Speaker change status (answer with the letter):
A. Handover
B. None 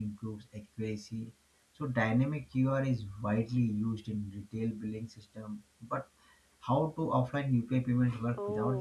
A